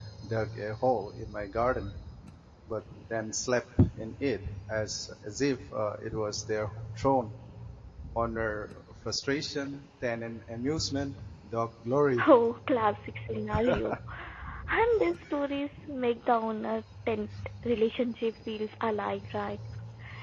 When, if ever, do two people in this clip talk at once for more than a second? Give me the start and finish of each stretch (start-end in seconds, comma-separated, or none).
none